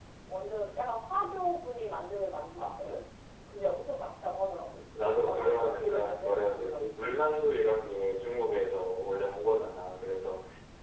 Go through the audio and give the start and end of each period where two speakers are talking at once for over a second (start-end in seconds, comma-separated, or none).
5.2-6.9